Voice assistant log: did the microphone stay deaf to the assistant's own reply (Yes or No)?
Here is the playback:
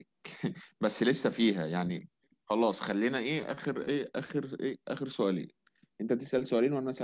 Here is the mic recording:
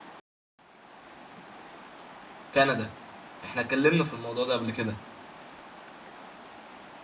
Yes